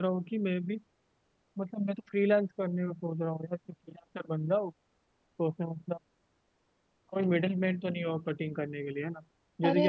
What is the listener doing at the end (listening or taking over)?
taking over